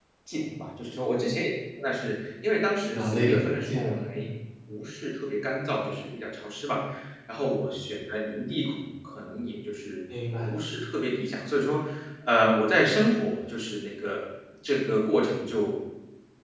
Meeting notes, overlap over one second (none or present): present